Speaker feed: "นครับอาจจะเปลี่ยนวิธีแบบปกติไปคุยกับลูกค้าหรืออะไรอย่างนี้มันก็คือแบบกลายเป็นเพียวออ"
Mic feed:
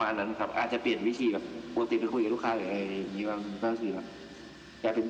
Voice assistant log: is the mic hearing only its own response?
Yes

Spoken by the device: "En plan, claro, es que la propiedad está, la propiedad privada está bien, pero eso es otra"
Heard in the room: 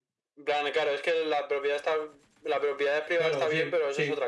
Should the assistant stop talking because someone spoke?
Yes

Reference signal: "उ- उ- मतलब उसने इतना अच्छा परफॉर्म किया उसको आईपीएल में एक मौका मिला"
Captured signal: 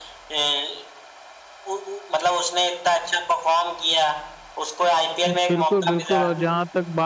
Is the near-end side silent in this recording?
No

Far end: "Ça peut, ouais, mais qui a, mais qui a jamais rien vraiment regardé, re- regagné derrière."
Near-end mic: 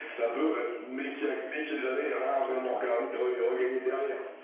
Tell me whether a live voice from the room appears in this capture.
No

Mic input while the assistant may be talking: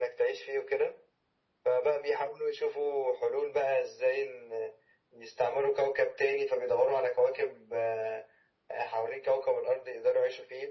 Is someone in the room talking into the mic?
No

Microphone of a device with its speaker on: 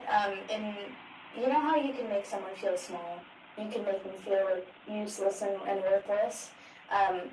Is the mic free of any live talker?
Yes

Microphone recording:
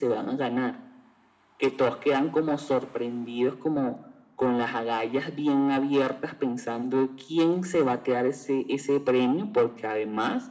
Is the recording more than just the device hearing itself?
No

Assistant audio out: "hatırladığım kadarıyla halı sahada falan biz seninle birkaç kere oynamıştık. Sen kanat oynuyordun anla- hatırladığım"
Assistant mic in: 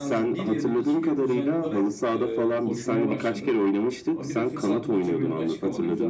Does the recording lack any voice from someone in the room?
No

